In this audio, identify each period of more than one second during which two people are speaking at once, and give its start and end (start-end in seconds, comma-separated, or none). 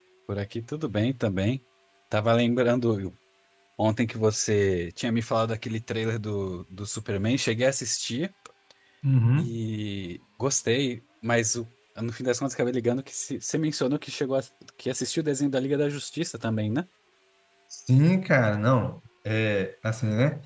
none